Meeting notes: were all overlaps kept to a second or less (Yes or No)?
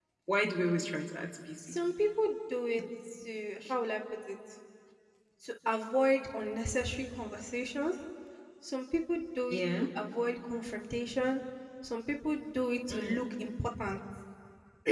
Yes